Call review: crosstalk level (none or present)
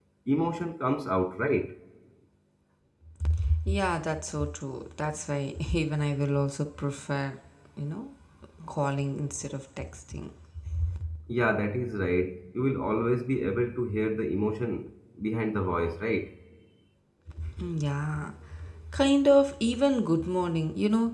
none